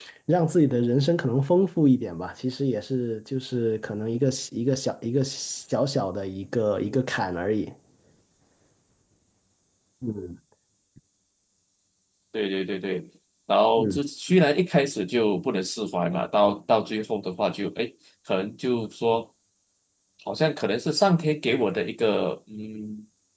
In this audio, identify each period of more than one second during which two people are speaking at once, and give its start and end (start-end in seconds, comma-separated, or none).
none